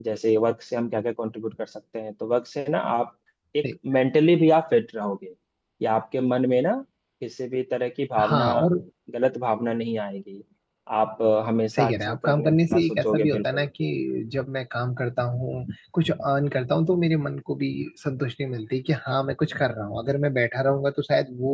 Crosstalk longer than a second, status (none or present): present